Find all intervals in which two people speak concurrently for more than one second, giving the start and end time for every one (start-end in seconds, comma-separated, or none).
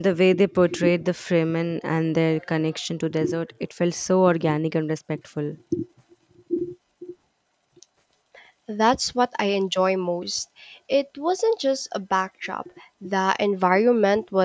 none